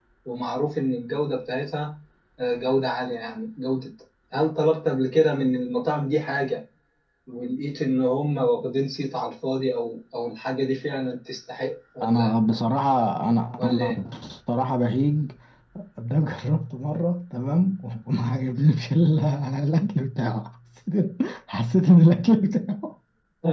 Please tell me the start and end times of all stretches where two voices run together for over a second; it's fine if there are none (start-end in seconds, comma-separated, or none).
none